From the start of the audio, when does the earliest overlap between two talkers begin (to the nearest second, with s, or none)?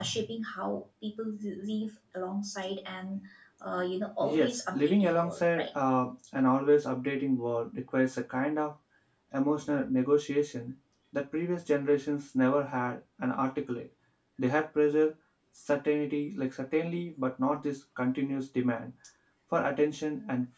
4 s